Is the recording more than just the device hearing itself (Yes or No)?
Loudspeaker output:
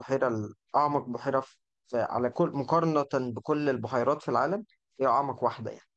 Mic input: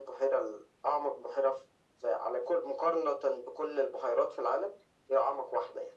No